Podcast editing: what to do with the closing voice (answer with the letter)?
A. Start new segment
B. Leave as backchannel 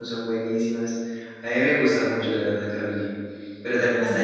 B